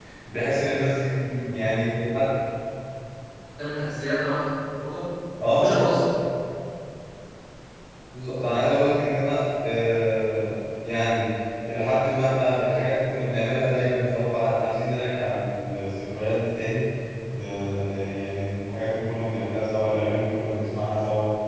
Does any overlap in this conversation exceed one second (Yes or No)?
No